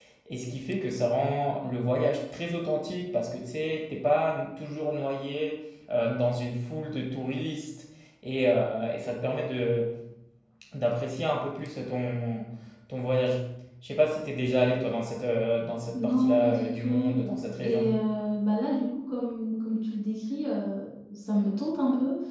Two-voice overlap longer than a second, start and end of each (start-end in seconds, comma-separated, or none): 15.9-17.2